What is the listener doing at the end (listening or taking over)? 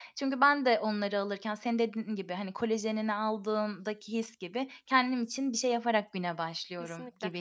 taking over